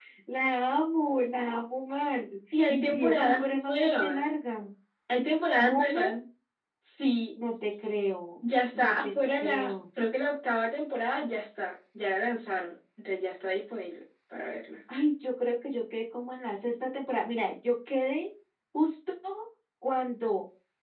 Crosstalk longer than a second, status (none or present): present